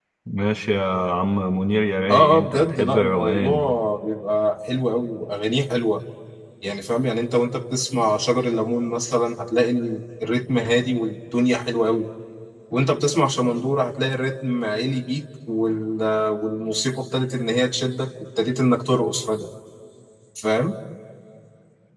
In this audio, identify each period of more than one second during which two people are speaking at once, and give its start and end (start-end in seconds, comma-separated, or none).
2.1-3.7